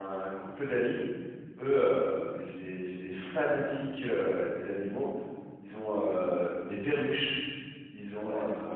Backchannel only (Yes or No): Yes